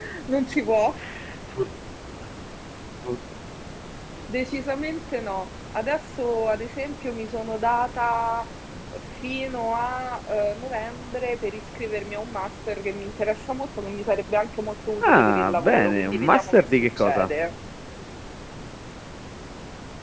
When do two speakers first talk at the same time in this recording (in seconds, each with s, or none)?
15.0 s